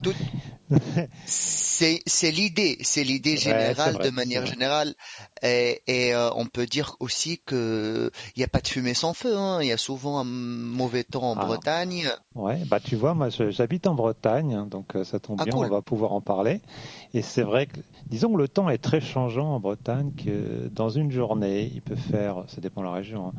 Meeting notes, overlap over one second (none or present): present